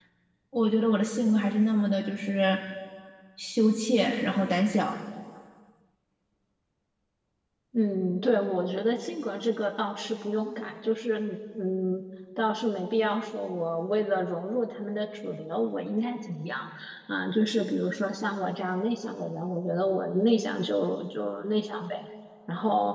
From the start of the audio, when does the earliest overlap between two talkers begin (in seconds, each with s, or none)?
none